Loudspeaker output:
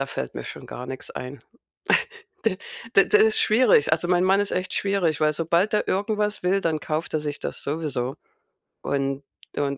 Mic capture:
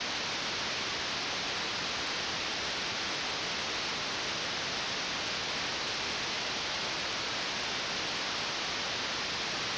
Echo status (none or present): none